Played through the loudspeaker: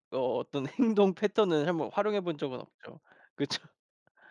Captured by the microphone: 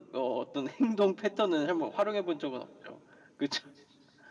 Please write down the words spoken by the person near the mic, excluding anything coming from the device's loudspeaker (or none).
none